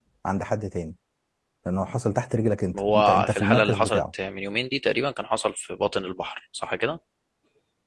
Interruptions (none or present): present